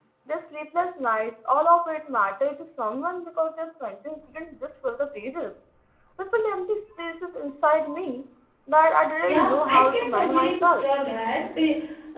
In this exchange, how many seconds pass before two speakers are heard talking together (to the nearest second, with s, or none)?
9 s